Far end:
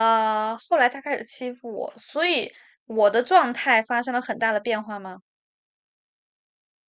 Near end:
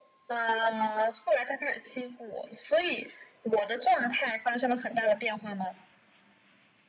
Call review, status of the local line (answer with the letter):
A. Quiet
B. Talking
A